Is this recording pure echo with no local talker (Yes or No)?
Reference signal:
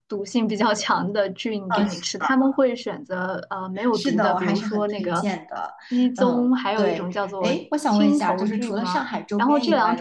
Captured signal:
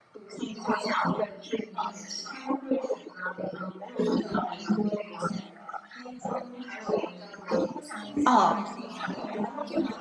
No